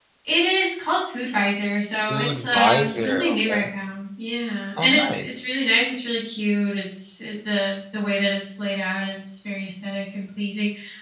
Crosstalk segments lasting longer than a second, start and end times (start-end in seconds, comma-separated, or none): 2.1-3.6